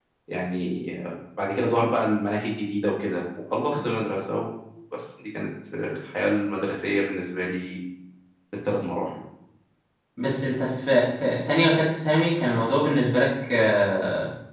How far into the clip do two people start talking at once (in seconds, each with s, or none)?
none